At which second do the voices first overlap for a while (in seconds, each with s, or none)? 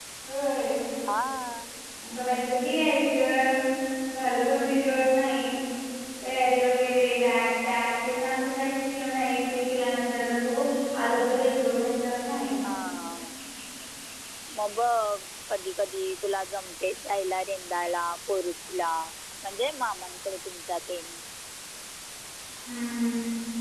none